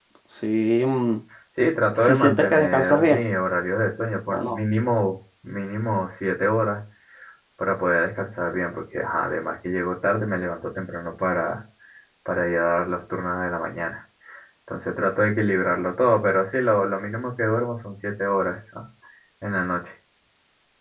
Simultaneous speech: Yes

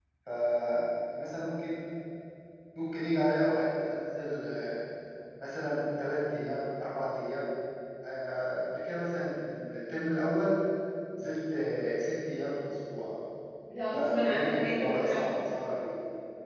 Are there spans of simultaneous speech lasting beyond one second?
Yes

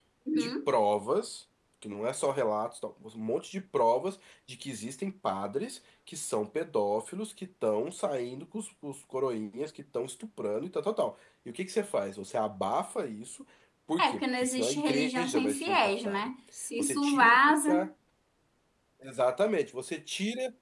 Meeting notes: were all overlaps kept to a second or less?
No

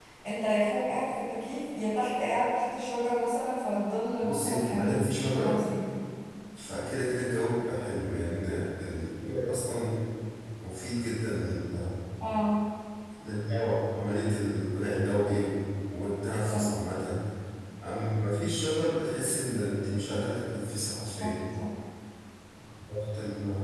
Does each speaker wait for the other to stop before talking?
No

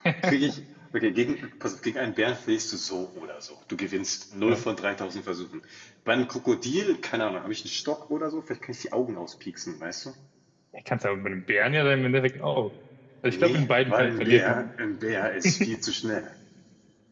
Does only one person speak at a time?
No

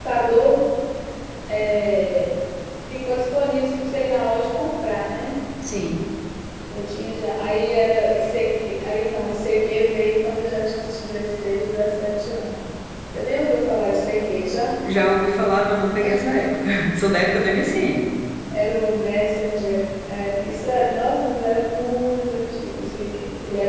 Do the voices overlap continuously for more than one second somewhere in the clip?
No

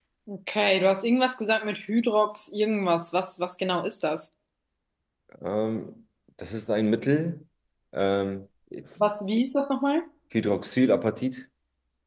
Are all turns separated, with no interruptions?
Yes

